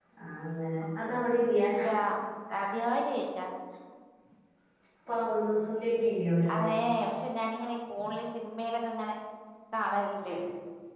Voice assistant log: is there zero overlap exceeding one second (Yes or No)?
Yes